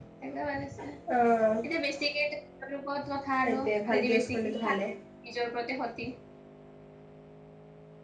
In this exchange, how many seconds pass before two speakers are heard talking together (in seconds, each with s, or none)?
3.4 s